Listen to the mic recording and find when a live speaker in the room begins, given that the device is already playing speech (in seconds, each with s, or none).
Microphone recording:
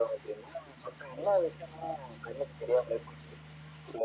none